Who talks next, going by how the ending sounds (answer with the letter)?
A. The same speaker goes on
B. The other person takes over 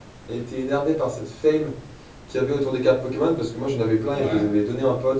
A